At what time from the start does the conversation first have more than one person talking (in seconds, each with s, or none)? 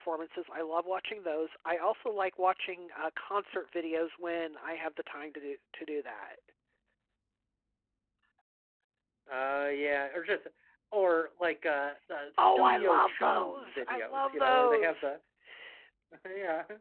12.3 s